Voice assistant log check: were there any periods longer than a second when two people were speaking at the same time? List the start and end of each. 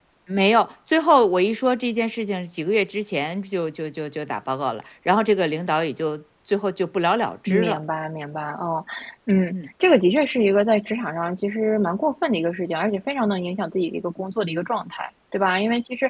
none

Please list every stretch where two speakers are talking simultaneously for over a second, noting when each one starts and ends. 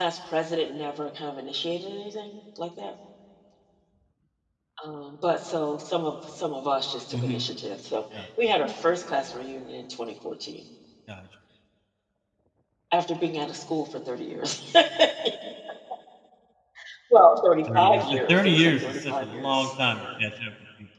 17.8-20.0

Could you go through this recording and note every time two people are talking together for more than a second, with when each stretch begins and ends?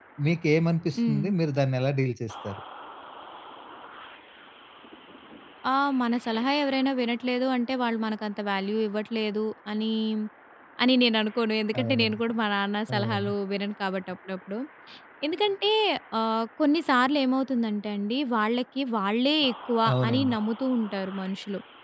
none

